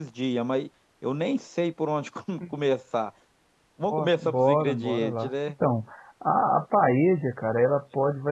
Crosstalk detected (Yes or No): Yes